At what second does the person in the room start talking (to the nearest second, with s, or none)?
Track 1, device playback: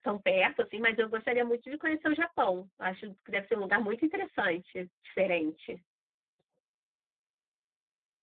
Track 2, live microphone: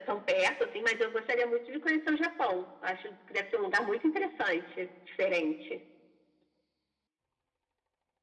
none